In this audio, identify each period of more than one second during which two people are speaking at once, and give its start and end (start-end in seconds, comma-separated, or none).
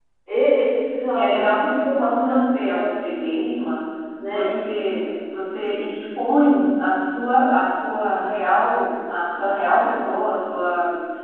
1.1-2.9